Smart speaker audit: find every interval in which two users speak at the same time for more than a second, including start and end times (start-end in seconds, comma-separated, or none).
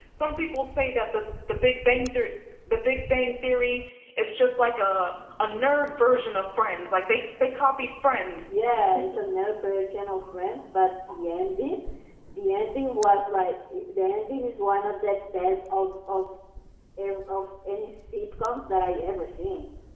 none